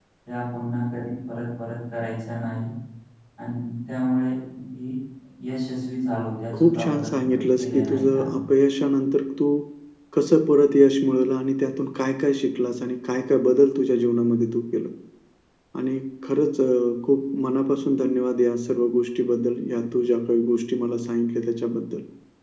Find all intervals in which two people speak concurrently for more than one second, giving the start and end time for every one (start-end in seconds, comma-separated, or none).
6.5-8.4